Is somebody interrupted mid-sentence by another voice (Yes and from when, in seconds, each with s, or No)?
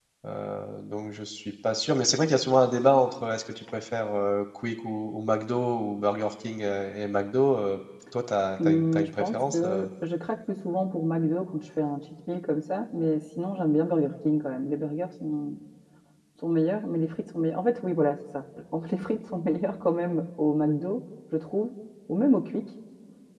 Yes, from 8.6 s